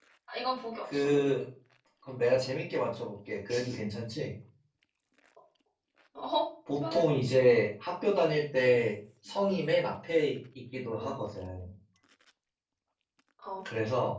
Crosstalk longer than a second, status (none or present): none